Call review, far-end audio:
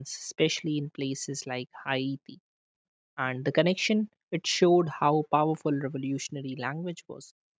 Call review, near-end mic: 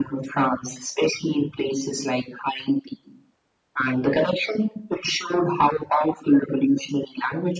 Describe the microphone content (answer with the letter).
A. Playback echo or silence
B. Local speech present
A